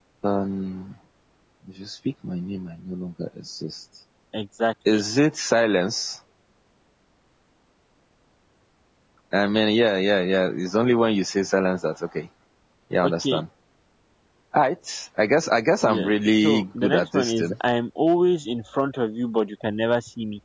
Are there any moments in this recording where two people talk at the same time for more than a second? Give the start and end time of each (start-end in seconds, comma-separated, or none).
15.8-17.5